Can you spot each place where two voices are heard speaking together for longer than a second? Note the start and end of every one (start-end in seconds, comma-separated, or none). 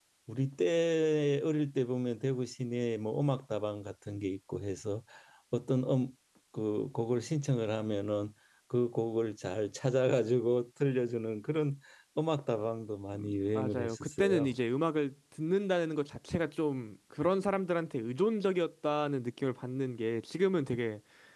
13.2-14.6